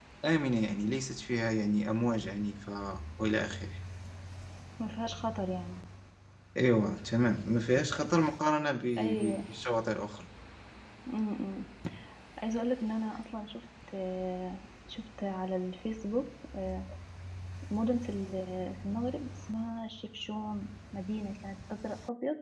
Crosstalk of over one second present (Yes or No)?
No